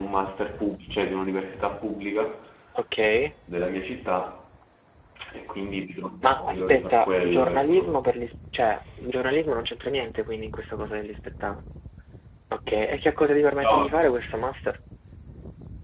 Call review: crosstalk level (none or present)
present